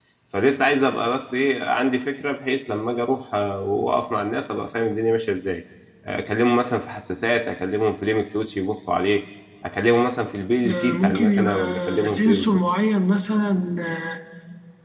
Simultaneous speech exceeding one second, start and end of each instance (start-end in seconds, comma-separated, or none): 10.7-12.6